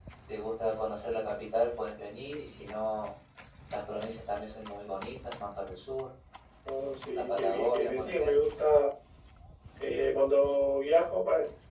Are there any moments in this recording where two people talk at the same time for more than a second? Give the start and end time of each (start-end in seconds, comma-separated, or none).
7.1-8.4